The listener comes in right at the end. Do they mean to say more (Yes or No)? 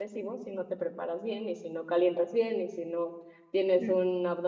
No